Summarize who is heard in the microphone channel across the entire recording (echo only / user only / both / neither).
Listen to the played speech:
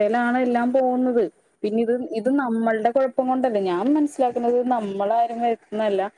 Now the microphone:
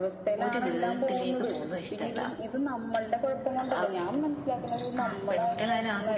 both